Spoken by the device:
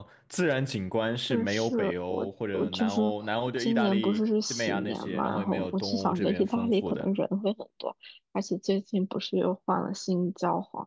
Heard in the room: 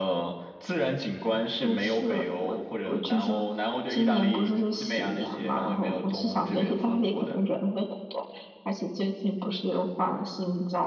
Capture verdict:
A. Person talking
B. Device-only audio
B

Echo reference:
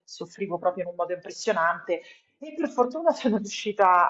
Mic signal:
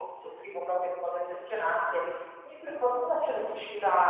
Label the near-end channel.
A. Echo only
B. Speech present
A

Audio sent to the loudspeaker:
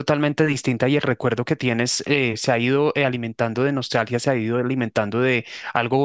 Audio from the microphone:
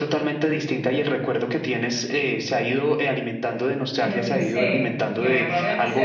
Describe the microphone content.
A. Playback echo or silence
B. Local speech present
B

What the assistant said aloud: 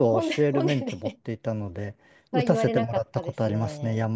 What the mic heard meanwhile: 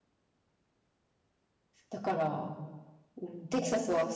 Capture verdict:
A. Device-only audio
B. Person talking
B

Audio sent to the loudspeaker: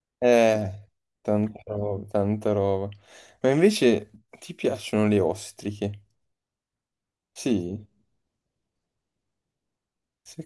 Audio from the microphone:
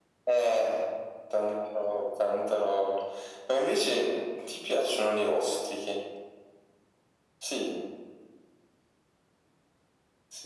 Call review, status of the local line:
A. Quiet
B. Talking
A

